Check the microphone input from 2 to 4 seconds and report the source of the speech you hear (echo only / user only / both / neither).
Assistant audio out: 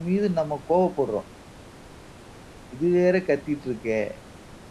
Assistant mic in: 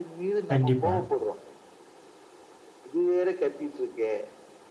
echo only